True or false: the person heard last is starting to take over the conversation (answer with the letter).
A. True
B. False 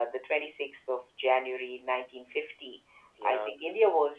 B